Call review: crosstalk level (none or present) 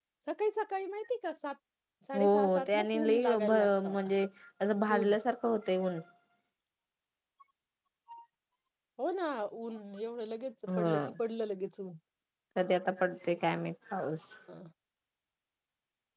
present